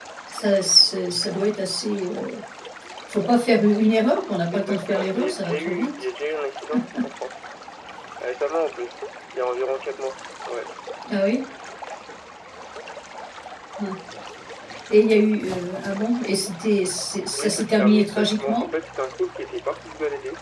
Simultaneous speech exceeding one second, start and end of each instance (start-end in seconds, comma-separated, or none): 4.5-5.9, 17.4-18.6